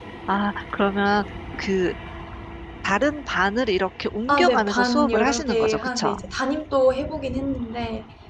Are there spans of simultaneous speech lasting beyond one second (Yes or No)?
Yes